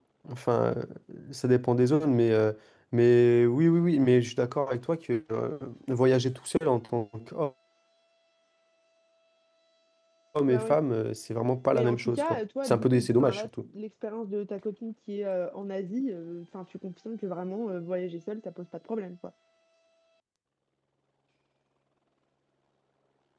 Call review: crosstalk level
present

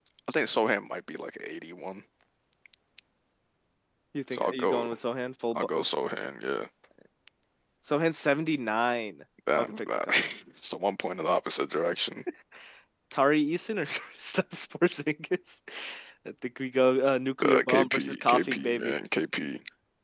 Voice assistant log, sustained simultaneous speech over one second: present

